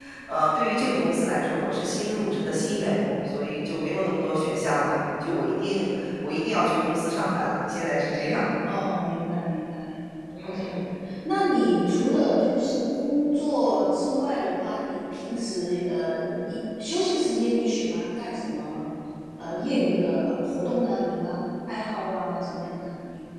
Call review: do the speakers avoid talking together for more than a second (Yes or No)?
Yes